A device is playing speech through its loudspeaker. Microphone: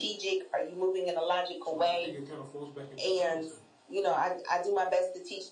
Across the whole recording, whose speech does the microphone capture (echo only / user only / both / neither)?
both